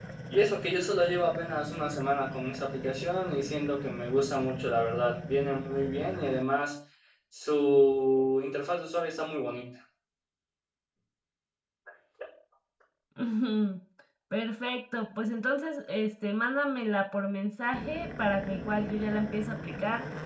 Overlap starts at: none

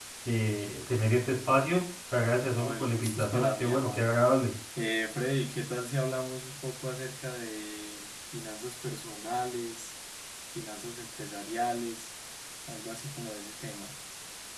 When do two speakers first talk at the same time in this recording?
2.4 s

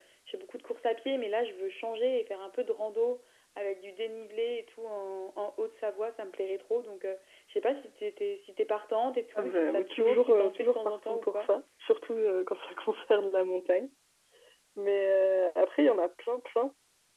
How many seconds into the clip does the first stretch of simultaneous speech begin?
9.3 s

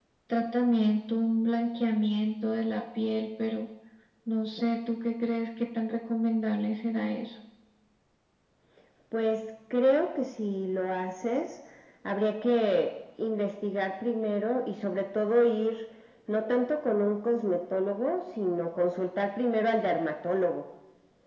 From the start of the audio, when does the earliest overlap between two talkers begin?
none

